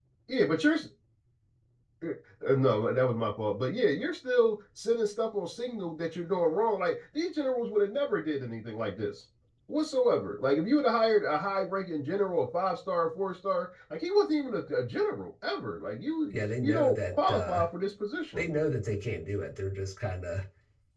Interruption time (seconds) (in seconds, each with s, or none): 16.3 s